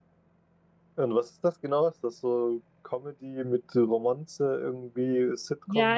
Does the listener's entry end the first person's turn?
Yes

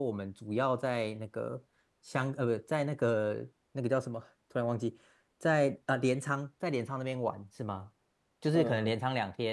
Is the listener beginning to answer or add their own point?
No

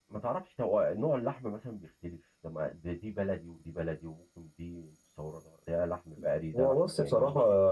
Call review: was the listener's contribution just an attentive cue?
No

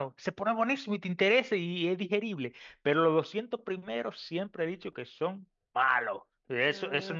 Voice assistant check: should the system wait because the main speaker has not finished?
Yes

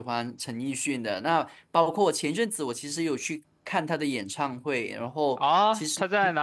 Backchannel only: No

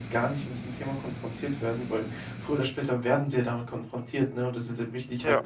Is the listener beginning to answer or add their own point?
No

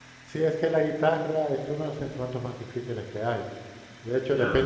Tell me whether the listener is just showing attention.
Yes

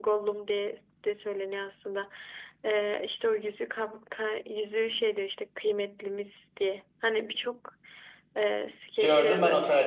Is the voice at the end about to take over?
Yes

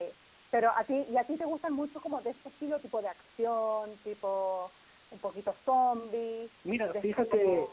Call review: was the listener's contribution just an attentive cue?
No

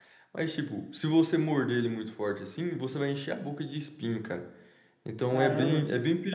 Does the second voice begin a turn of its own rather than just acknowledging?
Yes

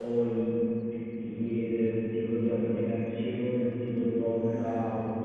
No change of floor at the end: Yes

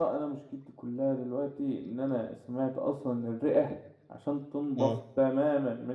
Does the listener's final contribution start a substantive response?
No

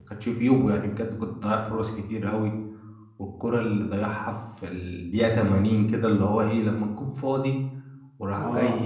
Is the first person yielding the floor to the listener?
No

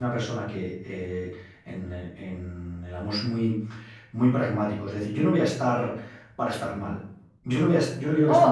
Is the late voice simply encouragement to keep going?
No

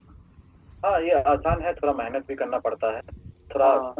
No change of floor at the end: Yes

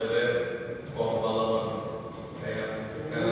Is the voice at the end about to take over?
Yes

